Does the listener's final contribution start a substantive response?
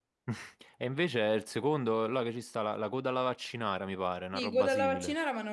Yes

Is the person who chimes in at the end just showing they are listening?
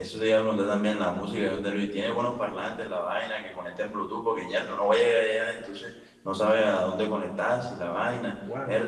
No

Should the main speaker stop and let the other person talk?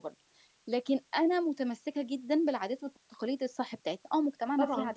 No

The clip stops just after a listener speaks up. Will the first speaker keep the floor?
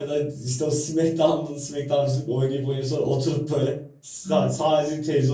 Yes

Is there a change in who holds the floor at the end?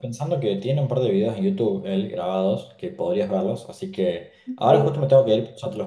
No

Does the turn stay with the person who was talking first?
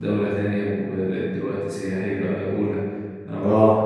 Yes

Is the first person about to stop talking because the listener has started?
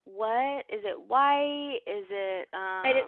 Yes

